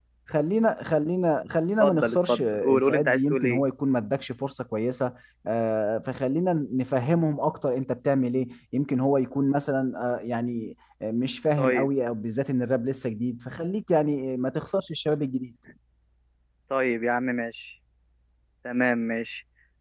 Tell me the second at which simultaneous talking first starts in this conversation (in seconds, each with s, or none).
1.8 s